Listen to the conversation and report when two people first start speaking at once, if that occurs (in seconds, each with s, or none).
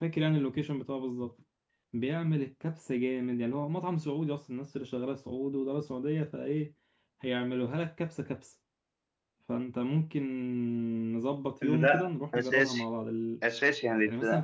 11.6 s